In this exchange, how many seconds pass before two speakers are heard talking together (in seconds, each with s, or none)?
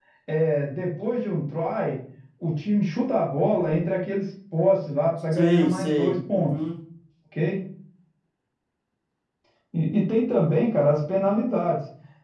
5.3 s